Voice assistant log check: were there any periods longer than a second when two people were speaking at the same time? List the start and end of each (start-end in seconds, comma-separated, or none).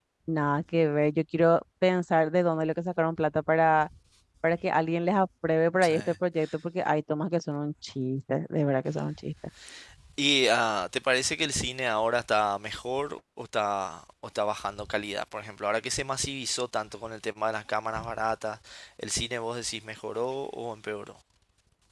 none